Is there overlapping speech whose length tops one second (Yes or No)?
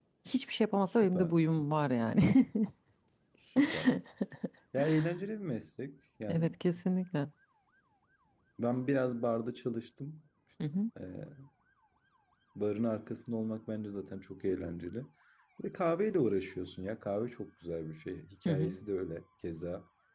No